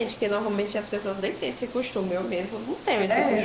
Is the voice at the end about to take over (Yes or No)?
Yes